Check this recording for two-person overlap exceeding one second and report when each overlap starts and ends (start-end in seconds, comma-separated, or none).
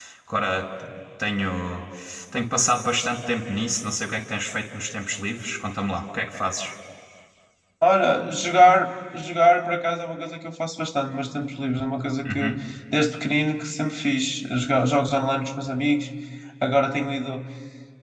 none